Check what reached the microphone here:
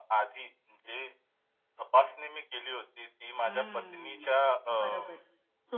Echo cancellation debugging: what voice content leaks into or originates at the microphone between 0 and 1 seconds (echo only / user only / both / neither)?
echo only